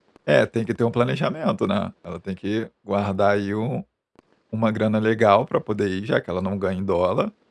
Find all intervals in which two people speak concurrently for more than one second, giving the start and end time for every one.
none

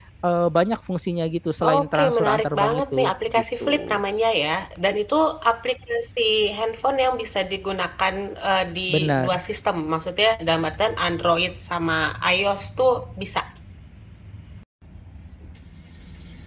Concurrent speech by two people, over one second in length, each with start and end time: 1.6-4.0

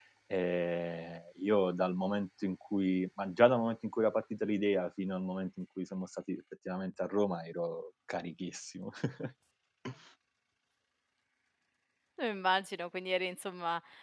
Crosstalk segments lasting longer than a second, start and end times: none

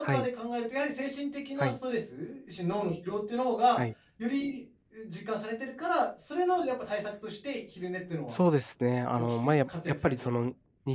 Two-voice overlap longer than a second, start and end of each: 9.2-10.4

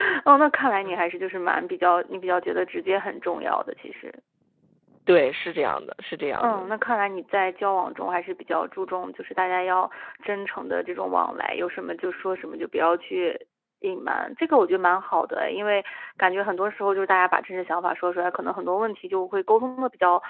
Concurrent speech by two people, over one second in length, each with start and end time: none

